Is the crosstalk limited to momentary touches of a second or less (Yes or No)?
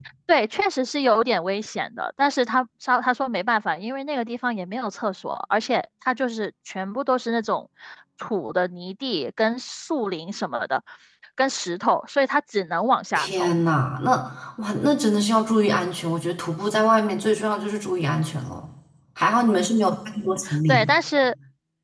Yes